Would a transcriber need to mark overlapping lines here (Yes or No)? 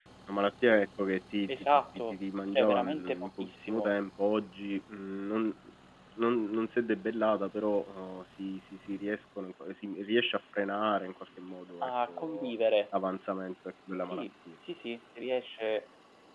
Yes